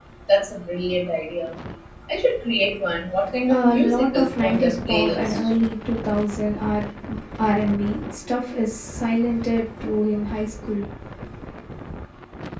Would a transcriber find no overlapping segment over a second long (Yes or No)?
No